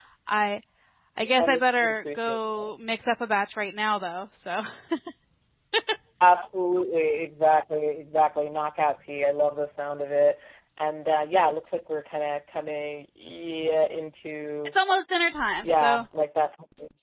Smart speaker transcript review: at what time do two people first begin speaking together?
1.4 s

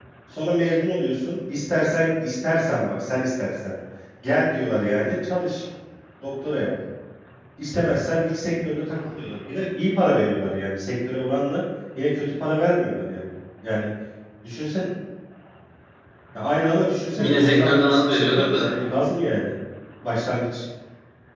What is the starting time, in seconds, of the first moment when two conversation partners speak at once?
17.2 s

